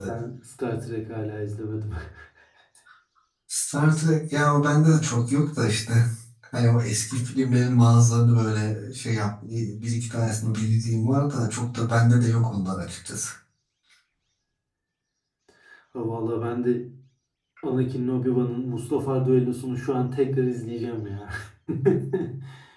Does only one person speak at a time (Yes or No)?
Yes